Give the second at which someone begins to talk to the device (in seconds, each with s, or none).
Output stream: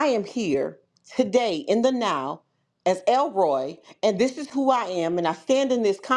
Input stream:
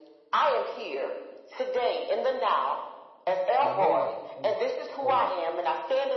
3.6 s